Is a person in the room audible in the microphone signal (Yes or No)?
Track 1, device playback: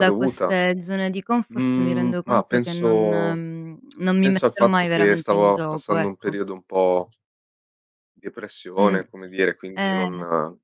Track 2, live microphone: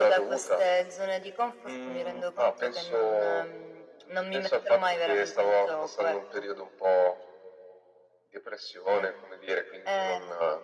No